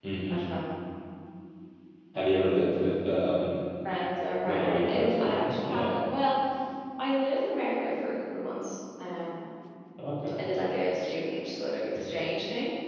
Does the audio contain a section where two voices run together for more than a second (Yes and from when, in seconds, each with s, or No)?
Yes, from 4.4 s